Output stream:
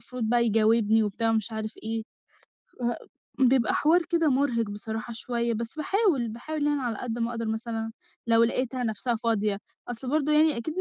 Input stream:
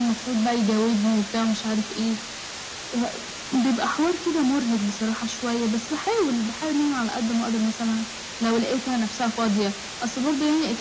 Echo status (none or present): present